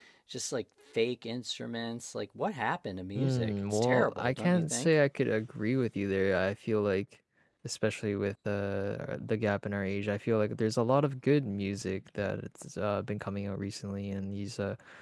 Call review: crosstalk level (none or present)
present